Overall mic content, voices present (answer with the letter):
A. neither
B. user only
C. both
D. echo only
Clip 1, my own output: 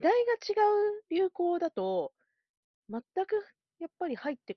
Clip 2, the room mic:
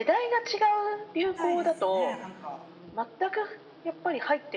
C